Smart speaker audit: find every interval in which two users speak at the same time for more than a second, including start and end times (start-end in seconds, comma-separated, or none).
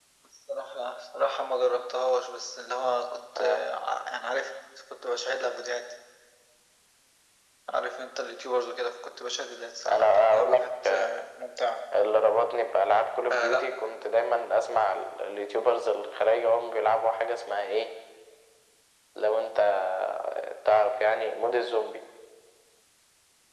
9.9-11.1